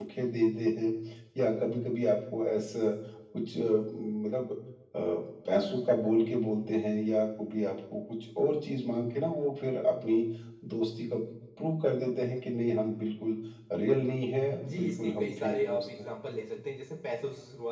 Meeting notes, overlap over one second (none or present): present